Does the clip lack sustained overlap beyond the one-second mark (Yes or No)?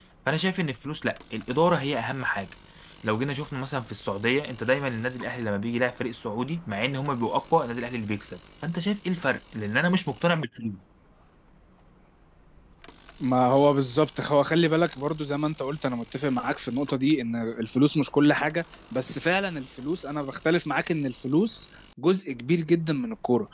Yes